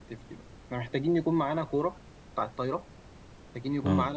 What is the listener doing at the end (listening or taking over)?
listening